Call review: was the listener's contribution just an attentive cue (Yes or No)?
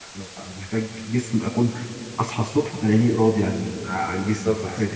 No